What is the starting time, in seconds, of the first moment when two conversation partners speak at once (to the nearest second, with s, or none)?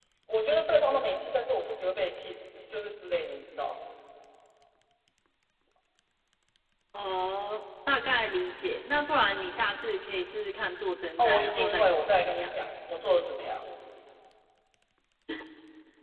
11 s